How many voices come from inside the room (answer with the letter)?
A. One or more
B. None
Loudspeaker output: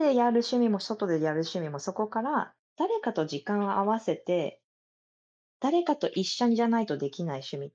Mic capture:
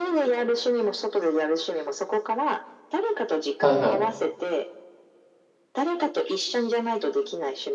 A